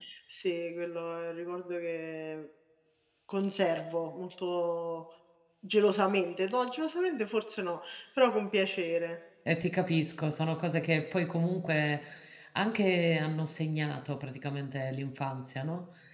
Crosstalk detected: No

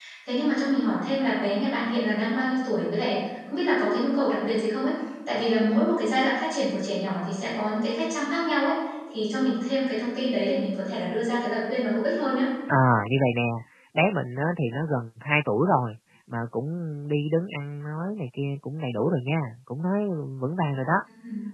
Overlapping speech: No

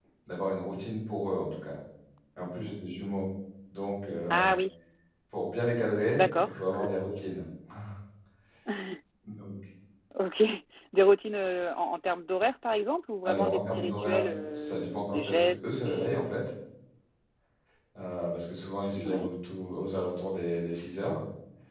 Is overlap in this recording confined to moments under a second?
No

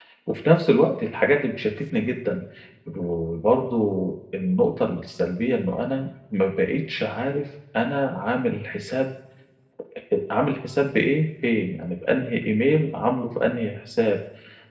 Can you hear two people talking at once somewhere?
No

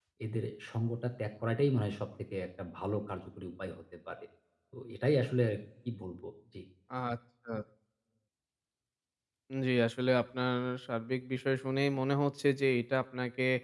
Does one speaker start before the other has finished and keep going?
No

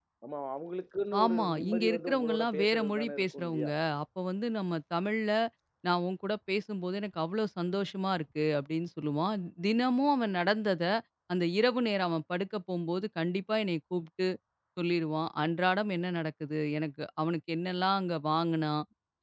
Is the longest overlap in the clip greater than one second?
Yes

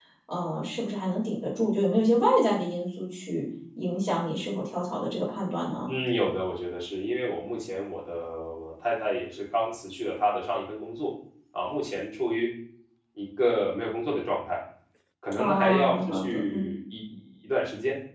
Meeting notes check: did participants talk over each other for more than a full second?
Yes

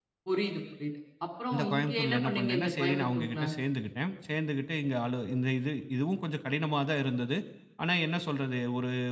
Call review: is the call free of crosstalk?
No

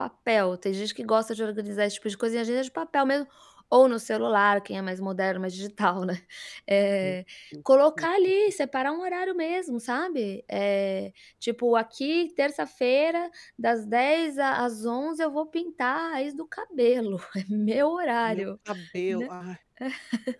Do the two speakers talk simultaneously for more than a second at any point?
No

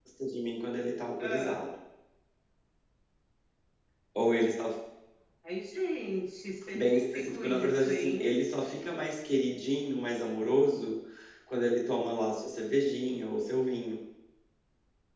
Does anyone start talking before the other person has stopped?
Yes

